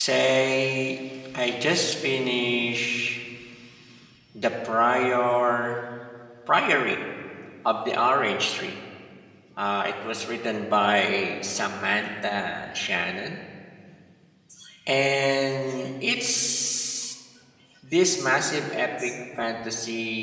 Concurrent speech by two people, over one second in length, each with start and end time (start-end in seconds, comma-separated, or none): none